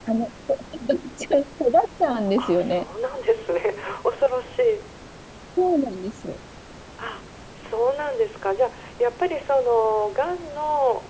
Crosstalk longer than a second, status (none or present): none